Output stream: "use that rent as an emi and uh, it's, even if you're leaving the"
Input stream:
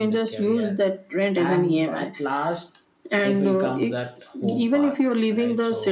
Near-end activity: present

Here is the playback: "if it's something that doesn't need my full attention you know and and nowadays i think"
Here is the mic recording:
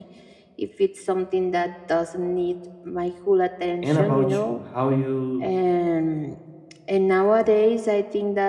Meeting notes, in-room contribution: present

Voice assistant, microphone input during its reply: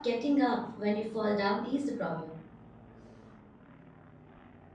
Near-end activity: present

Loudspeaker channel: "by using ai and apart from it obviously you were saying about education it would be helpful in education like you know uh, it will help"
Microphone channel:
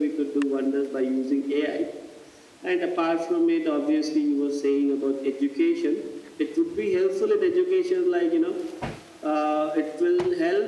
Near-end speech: none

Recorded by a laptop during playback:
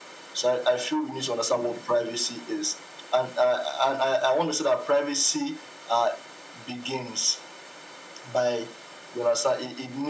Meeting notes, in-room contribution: none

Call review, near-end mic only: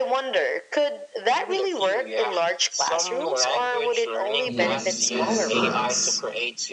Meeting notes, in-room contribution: present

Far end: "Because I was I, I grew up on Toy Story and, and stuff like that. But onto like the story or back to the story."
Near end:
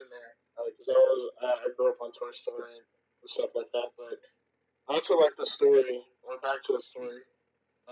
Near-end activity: none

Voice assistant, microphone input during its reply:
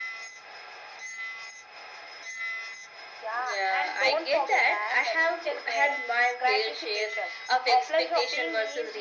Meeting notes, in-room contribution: none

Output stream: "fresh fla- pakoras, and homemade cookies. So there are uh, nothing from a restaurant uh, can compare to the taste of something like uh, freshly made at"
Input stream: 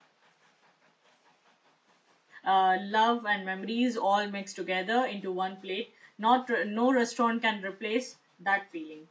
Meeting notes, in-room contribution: present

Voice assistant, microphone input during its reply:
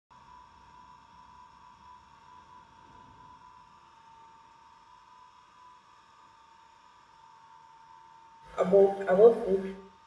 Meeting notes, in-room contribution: present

